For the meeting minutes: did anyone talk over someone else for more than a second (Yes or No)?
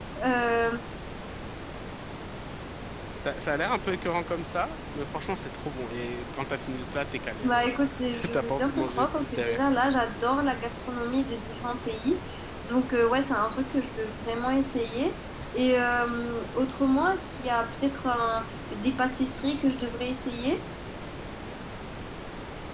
Yes